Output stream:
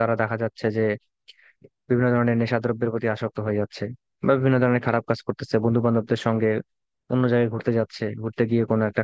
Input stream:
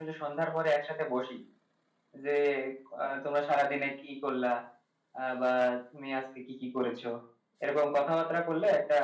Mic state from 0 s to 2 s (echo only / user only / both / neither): user only